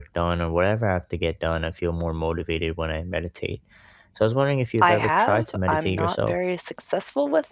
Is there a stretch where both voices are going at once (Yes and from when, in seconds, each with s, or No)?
Yes, from 4.8 s